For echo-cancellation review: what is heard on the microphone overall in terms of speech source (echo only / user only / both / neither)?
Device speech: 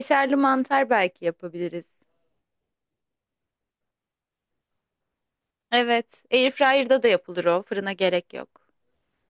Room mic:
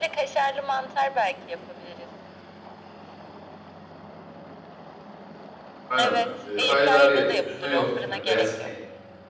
both